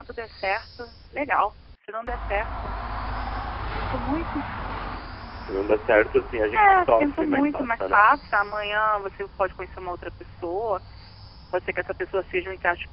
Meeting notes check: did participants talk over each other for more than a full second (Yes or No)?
Yes